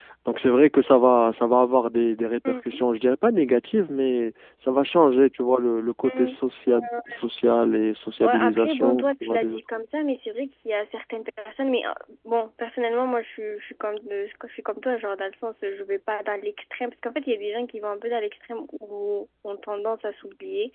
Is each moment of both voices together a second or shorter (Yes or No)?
No